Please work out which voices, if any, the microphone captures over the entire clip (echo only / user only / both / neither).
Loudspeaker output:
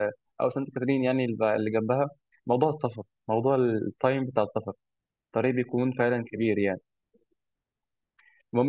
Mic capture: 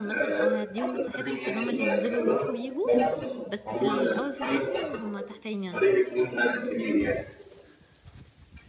both